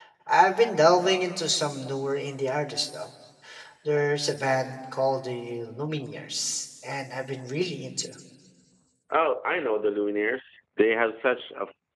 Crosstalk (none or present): none